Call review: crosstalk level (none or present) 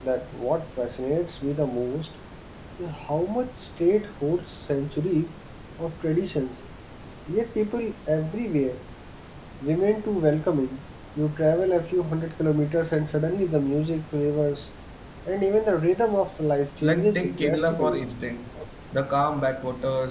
present